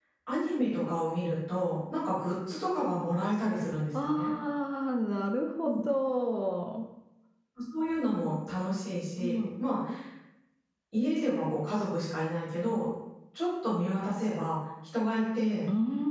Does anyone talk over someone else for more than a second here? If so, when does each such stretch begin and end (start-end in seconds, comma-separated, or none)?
none